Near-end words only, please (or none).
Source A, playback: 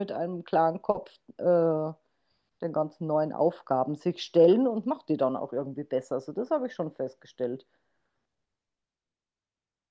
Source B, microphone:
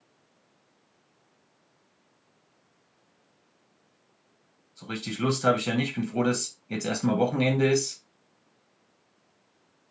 so richtig Lust habe ich ja nicht. Bin froh, dass jetzt erstmal Wochenende ist